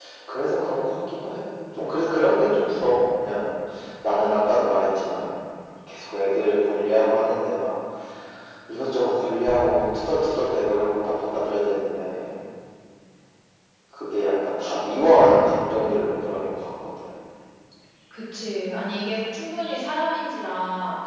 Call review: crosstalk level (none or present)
none